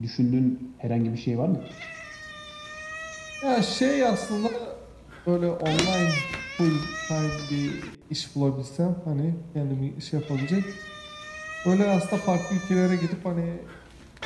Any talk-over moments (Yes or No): No